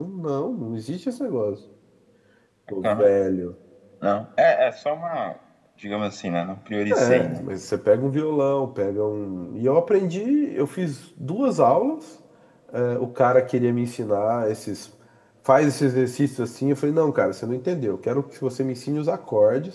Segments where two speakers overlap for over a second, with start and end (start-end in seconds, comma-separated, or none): none